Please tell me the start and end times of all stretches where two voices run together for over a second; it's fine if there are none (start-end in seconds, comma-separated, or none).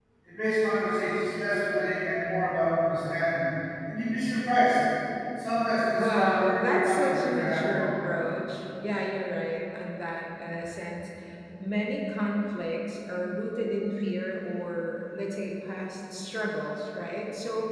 6.0-7.9